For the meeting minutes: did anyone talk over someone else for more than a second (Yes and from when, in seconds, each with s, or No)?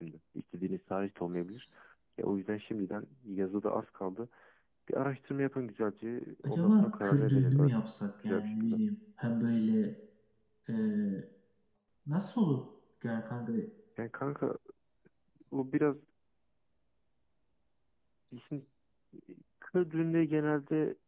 Yes, from 6.4 s